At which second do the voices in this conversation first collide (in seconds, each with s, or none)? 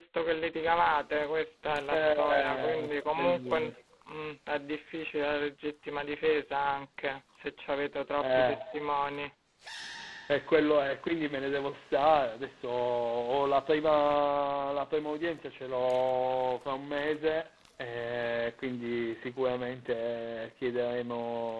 1.9 s